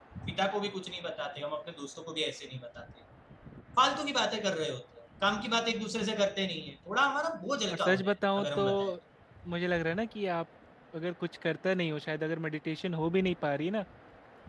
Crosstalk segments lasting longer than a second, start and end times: 7.7-8.9

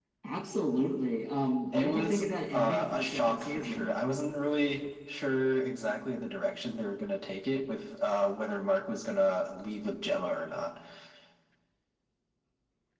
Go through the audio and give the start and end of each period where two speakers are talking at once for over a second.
1.7-4.0

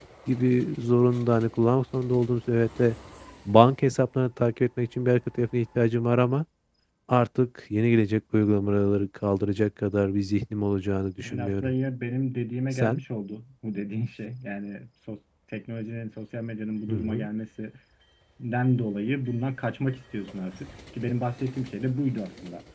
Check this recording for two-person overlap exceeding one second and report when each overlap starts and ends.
none

